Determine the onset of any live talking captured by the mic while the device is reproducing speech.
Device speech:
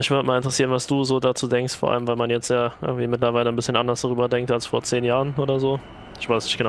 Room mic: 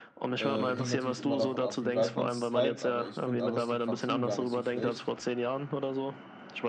0.4 s

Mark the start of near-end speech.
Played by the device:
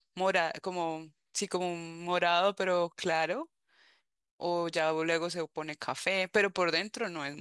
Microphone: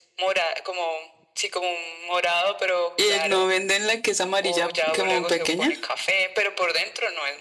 3.0 s

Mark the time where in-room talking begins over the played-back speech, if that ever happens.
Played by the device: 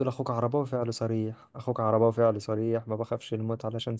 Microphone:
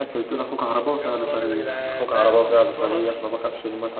1.0 s

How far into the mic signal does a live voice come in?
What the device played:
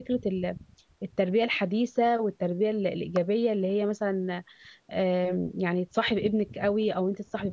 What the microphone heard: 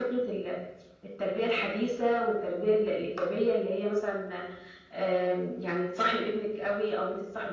none

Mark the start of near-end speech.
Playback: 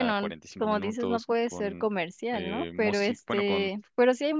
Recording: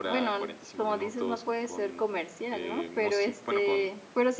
none

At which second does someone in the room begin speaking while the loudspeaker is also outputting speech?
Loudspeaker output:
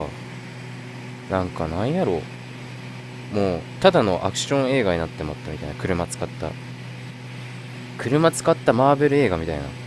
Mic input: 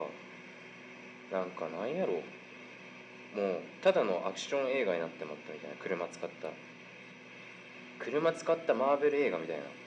none

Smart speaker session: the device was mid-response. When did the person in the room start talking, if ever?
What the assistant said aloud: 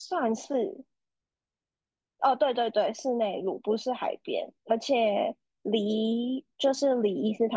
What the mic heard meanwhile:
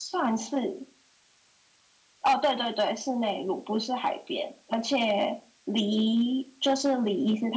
none

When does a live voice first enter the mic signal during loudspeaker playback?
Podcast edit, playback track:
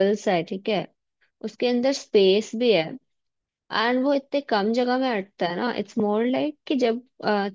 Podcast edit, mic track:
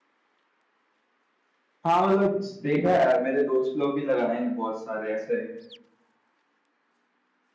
1.8 s

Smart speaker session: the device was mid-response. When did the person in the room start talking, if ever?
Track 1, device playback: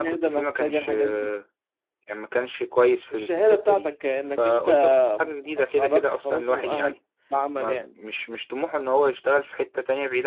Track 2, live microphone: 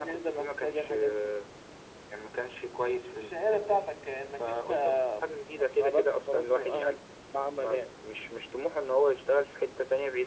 none

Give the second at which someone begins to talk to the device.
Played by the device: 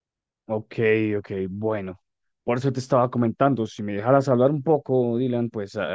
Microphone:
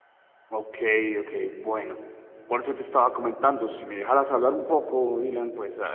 none

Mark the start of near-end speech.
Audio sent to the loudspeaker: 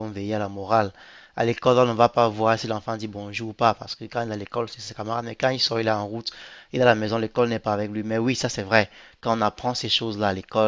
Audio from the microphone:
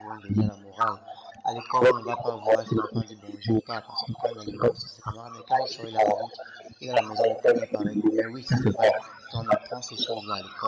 none

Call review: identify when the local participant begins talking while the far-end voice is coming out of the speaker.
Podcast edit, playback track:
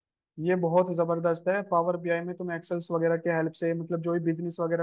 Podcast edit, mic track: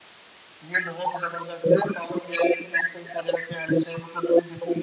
none

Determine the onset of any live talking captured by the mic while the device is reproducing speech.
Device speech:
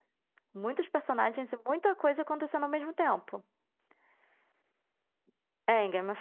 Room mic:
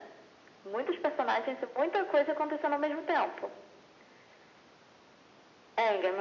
none

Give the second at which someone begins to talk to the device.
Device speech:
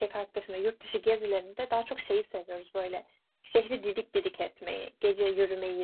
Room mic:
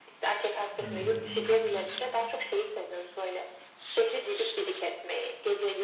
0.8 s

